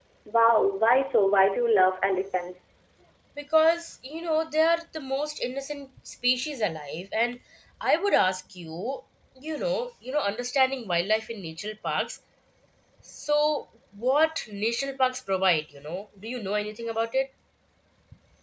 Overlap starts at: none

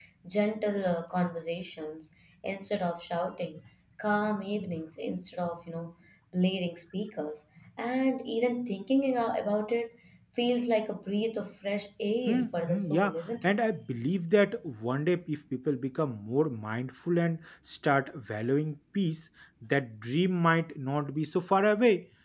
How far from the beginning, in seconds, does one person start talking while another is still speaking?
12.3 s

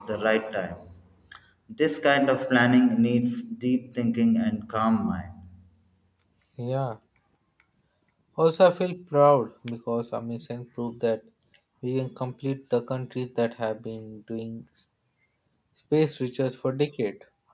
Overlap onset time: none

